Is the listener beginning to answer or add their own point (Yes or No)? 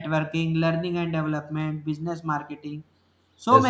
No